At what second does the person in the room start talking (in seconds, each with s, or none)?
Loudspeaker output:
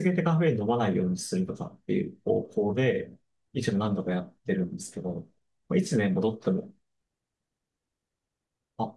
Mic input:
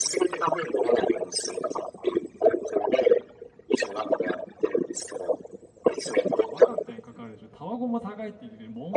6.3 s